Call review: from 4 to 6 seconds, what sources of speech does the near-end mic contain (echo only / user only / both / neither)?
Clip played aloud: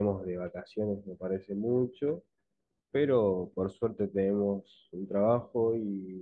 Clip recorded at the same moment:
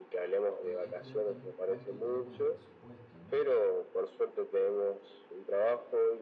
echo only